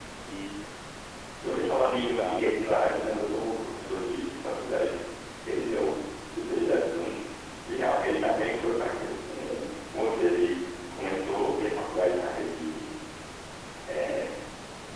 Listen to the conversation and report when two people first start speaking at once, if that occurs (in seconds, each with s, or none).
1.4 s